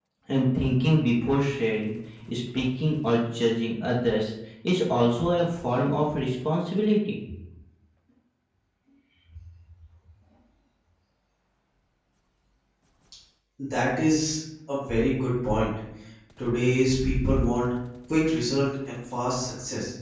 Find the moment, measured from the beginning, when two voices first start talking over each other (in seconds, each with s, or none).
none